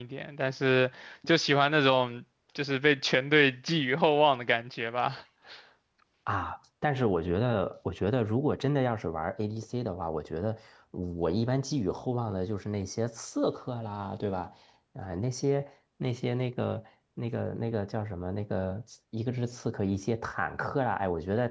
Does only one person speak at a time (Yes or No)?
Yes